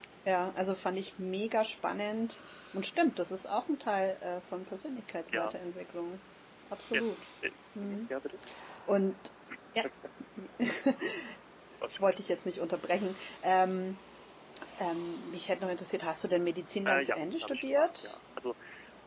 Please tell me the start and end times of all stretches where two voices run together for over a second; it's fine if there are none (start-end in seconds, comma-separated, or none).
16.9-18.1